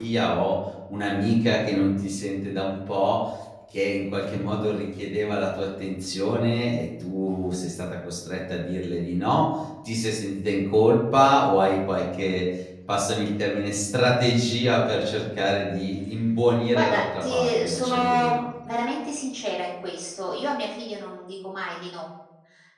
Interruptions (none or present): present